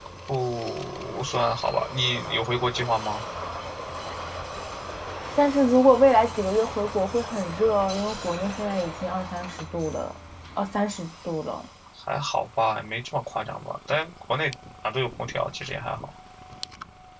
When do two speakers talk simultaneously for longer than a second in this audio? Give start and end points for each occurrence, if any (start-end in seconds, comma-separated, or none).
none